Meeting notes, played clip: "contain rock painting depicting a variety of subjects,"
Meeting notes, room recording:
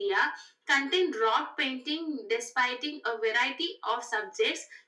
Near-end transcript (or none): none